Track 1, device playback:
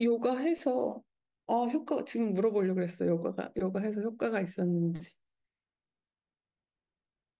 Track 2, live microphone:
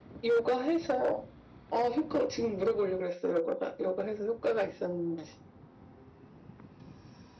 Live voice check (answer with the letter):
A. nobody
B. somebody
A